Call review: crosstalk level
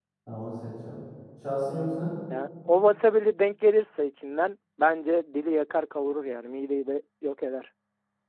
none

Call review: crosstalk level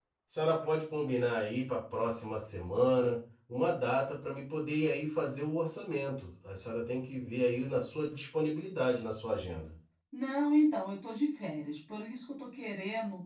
none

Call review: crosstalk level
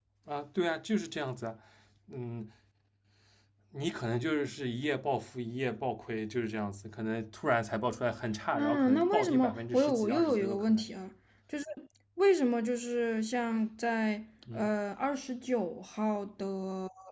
present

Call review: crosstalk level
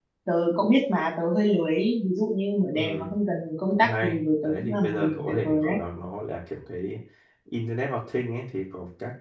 present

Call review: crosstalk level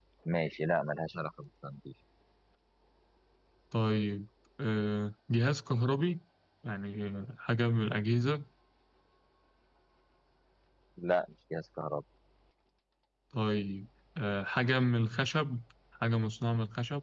none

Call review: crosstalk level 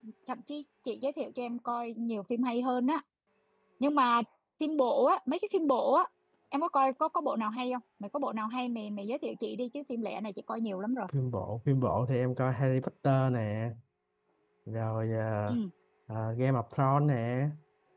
none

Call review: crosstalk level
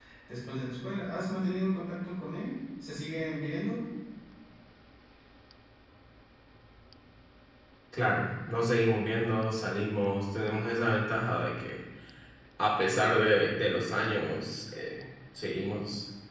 none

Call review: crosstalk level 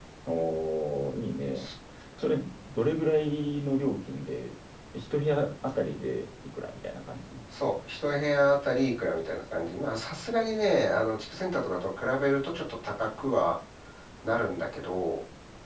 none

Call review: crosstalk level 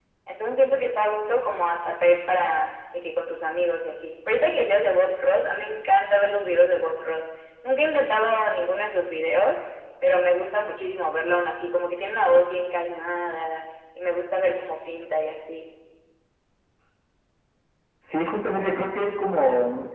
none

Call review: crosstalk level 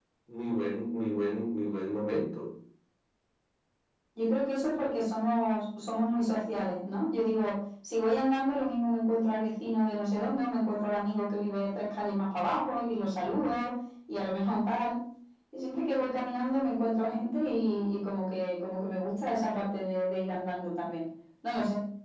none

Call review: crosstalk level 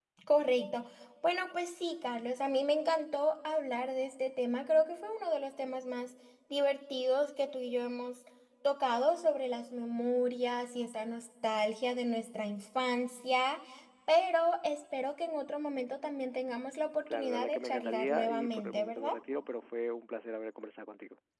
present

